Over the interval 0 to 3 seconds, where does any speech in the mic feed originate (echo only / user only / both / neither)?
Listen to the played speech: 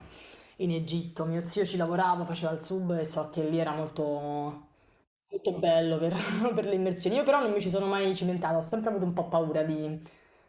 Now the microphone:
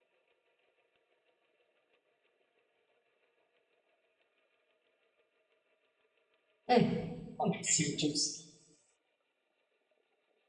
neither